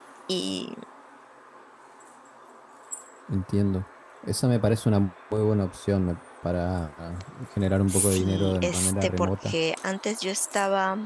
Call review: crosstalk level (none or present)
present